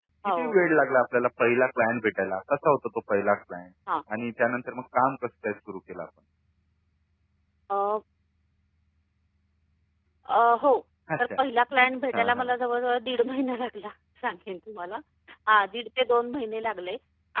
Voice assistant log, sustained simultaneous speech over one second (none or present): none